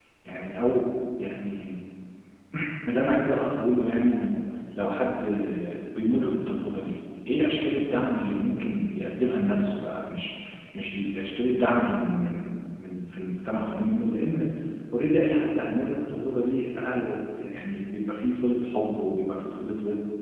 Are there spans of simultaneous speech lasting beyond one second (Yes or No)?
No